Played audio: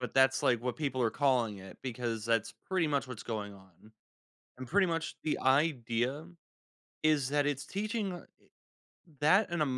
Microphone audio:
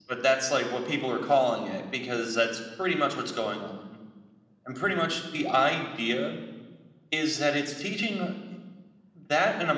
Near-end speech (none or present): none